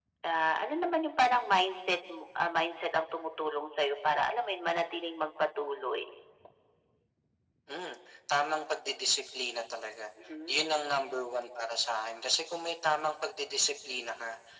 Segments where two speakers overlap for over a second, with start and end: none

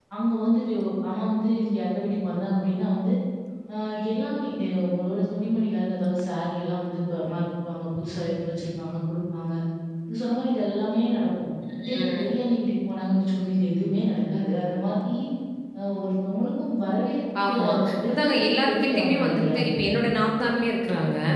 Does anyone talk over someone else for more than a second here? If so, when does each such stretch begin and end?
18.1-19.7

